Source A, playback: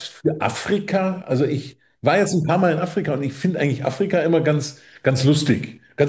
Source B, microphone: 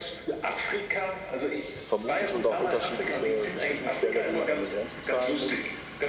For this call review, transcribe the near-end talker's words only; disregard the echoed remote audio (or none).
Vermutlich und auch unterschiedliche Bestechungsgelder, die man an den Grenzen zahlen muss.